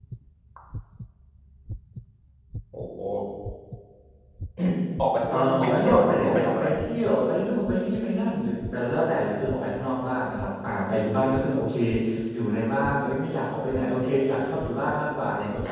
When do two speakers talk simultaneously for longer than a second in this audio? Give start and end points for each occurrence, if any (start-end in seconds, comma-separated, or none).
5.3-6.6